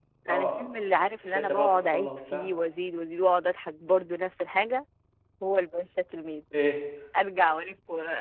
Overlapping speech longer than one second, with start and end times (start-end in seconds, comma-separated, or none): 1.2-2.5